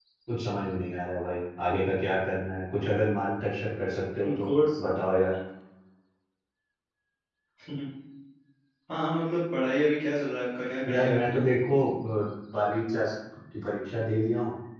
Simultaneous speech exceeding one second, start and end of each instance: none

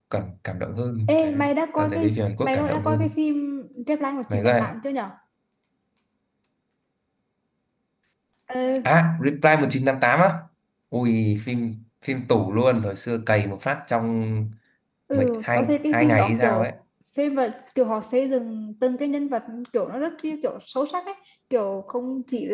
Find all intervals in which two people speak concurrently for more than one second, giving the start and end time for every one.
1.8-3.1, 15.1-16.7

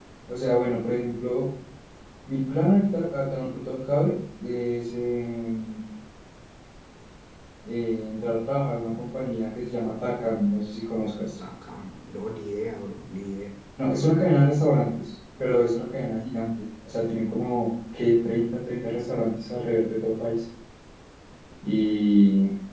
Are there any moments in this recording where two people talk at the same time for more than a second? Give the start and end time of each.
none

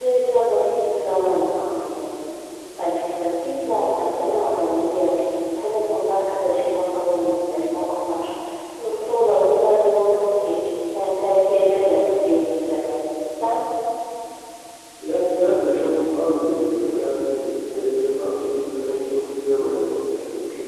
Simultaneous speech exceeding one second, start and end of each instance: none

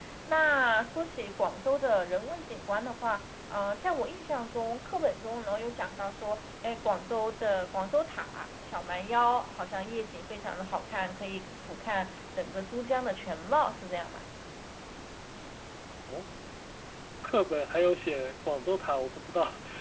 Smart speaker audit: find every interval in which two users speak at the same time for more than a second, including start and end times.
none

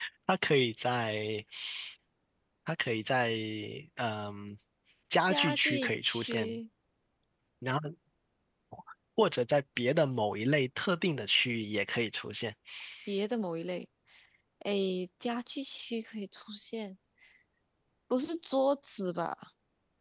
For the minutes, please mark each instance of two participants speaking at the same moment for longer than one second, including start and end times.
5.3-6.6

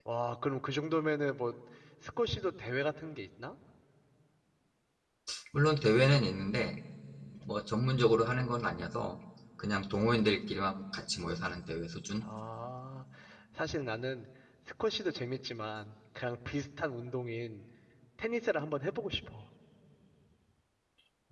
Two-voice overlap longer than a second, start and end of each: none

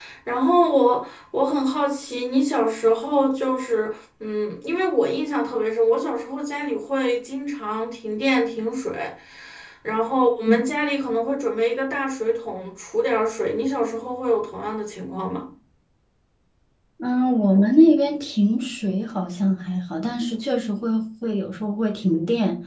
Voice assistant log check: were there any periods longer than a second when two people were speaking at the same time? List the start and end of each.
none

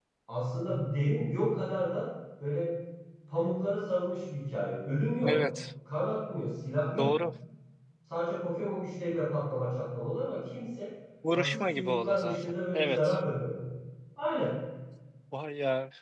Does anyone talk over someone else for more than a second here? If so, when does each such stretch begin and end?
11.3-13.2

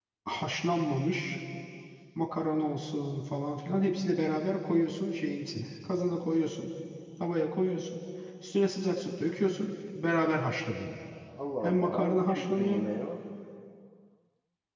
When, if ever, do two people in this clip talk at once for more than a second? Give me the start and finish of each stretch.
11.6-12.8

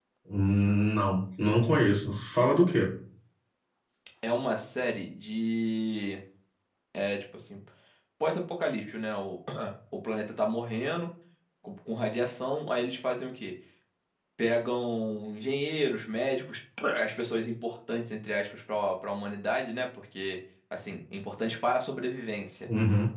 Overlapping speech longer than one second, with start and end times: none

